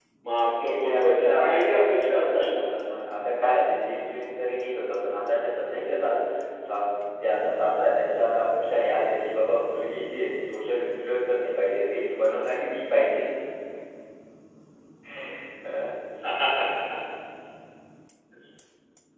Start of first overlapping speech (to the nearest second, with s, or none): 1 s